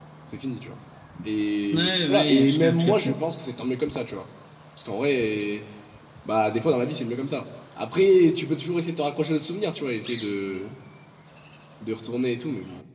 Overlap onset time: 1.7 s

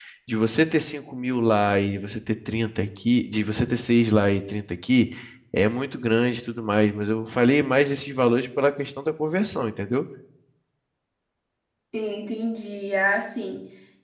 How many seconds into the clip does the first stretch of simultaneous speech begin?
none

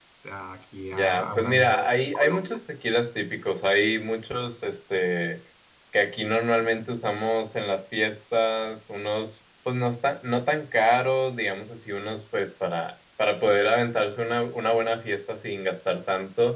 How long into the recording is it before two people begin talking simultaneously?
0.9 s

